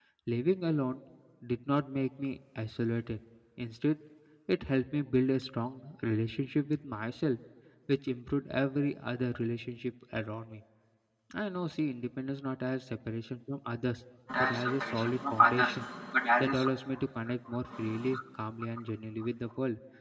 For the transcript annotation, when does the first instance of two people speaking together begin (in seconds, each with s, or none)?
14.4 s